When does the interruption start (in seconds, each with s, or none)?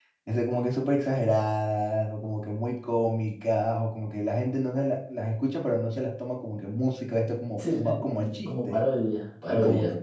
7.6 s